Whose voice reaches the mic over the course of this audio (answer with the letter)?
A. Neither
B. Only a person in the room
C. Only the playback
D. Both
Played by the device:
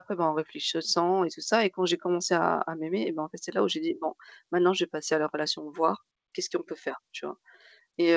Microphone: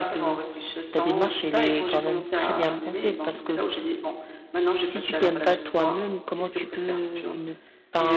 D